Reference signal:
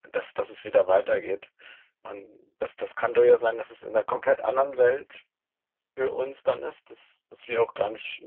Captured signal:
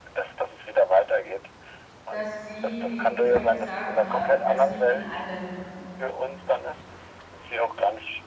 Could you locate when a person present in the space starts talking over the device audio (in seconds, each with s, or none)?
2.1 s